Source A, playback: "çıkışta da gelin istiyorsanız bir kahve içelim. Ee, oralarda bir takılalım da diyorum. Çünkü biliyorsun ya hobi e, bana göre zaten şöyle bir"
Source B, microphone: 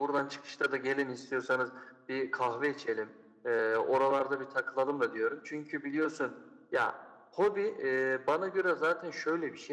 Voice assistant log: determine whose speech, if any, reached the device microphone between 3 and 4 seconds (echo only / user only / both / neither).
echo only